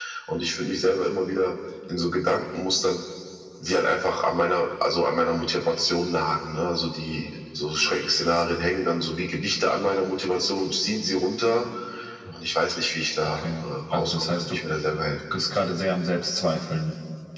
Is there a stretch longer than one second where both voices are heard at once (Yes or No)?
Yes